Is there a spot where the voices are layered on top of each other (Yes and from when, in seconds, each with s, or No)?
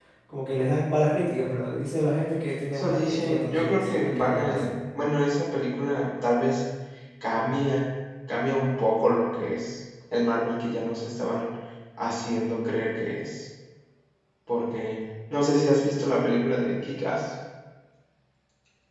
Yes, from 2.7 s